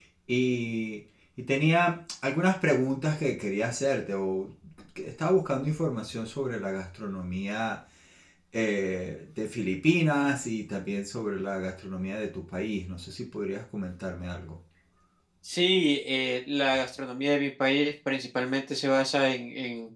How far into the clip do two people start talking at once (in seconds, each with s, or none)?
none